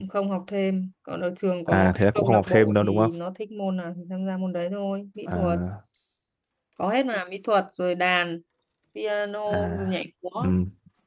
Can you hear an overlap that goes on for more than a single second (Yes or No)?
Yes